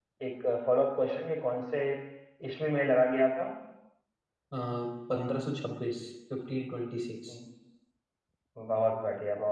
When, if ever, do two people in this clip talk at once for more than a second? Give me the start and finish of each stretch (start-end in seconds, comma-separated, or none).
none